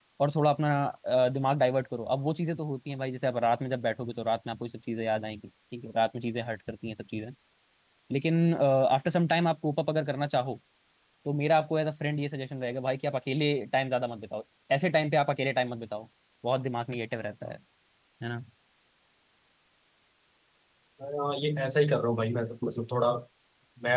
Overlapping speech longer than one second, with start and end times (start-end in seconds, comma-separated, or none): none